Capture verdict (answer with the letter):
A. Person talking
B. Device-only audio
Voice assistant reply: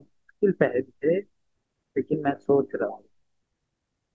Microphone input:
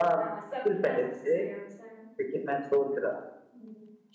A